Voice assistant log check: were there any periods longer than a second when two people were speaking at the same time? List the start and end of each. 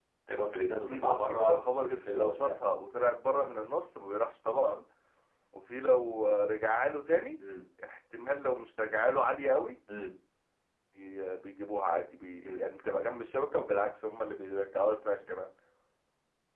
0.9-2.5

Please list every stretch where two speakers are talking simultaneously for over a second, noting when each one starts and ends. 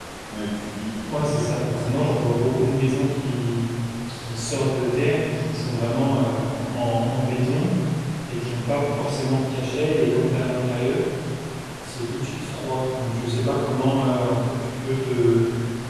1.1-2.9

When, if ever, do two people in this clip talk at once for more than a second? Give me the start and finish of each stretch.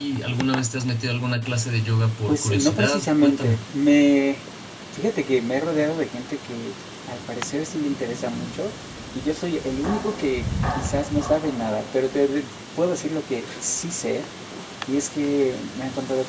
2.3-3.6

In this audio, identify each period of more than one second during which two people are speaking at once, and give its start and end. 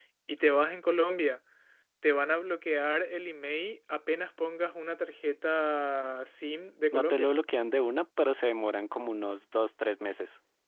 none

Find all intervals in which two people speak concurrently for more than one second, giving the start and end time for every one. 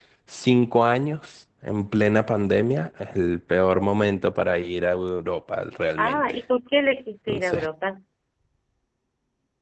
none

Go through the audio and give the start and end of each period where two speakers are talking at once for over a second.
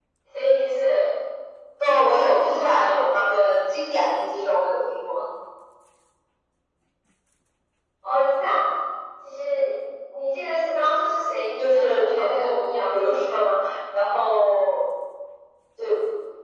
2.1-3.3, 11.6-13.4

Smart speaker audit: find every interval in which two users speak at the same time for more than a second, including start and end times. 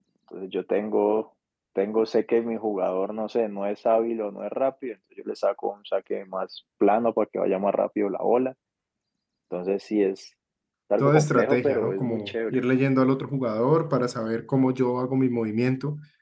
11.0-12.6

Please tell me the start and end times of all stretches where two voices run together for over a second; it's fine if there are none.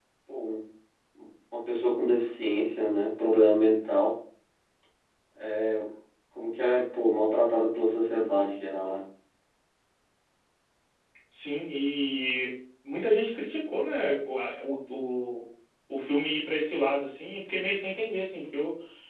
none

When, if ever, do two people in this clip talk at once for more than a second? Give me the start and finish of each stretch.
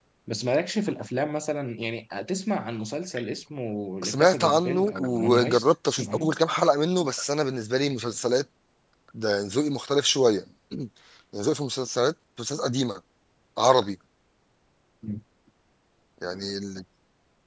4.0-6.3

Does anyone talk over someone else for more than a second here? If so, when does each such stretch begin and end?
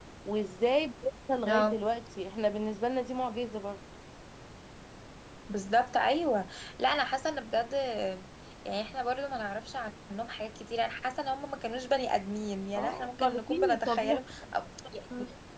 12.8-14.2

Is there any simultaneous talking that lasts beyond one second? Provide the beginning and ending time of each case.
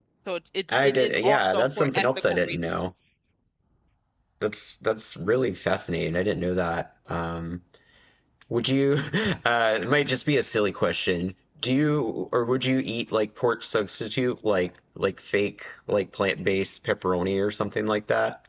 0.7-2.6

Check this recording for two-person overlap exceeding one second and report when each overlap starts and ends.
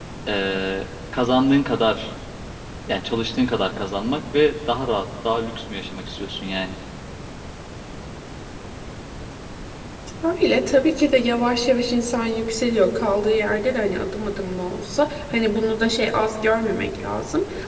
none

